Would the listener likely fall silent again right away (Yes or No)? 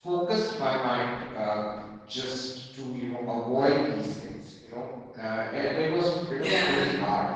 Yes